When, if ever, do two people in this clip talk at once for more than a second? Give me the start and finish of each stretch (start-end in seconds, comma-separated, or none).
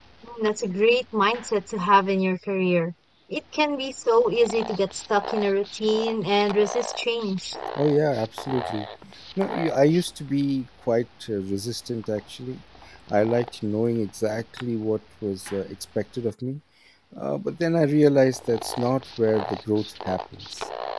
none